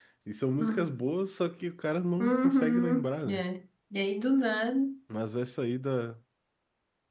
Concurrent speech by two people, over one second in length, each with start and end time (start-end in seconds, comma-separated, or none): 2.2-3.4